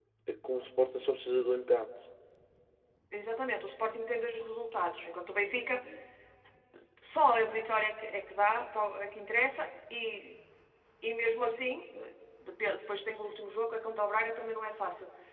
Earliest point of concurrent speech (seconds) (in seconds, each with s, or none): none